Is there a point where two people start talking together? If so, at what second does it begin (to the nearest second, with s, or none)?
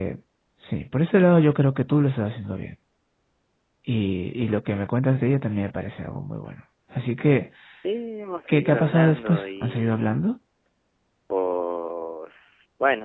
8 s